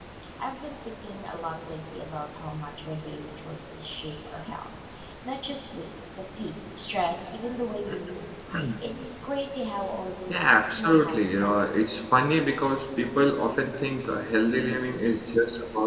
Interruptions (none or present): present